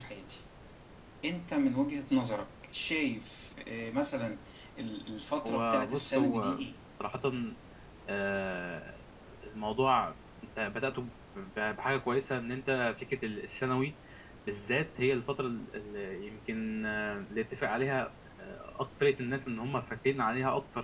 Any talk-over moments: Yes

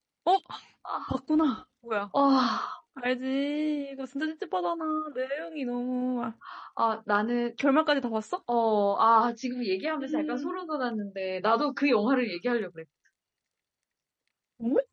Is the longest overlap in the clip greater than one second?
No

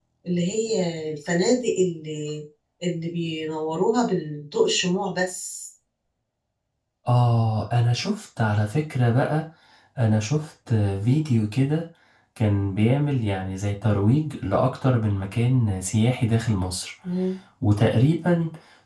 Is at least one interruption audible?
No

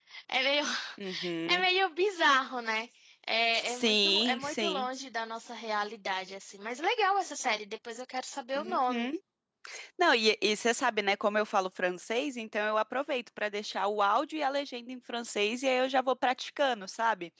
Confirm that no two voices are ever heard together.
No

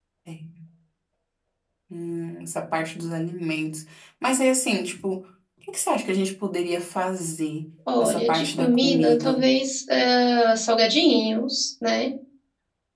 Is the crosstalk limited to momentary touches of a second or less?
No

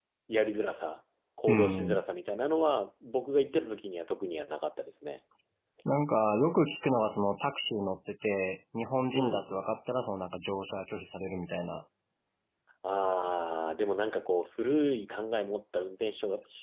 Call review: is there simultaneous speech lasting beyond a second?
No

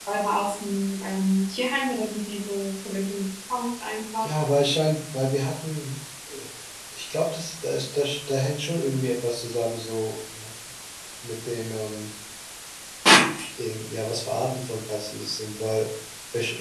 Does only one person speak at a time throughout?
Yes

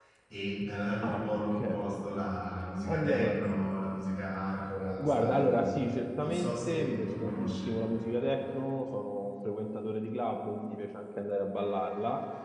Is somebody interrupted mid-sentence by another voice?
Yes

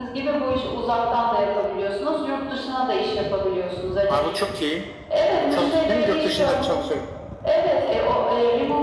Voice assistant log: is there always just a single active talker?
No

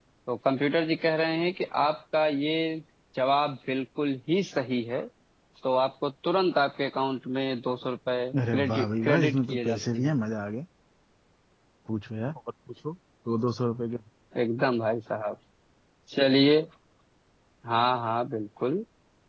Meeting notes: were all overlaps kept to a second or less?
No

